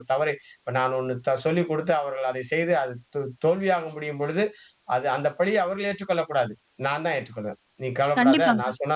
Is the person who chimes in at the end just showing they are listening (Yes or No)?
Yes